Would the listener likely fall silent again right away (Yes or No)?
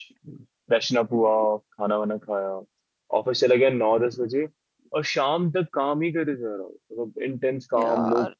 No